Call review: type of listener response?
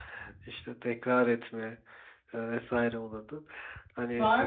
taking over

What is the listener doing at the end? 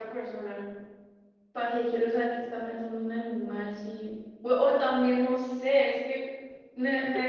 listening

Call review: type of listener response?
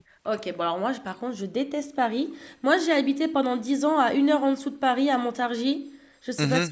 taking over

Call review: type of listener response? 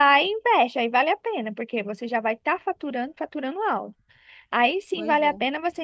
listening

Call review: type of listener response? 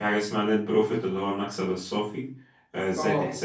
listening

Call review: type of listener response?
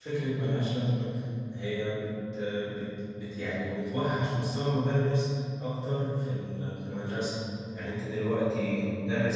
listening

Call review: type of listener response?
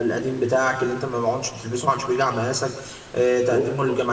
listening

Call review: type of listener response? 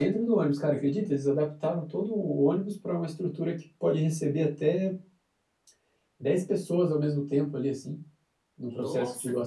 taking over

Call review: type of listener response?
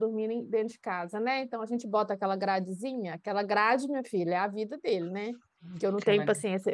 listening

